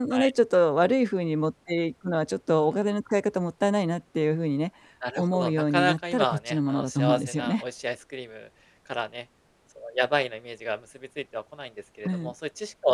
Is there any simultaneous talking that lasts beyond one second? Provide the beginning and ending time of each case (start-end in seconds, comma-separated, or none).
5.2-7.6